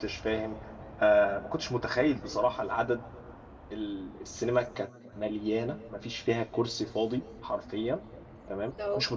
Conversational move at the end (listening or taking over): listening